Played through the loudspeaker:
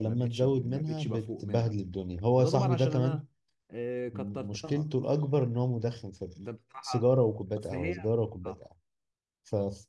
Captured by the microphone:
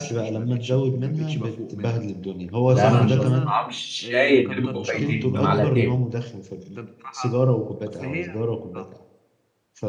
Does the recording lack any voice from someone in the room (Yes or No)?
No